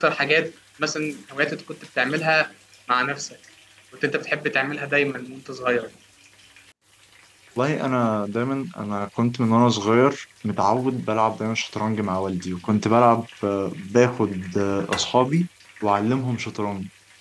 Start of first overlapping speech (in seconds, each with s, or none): none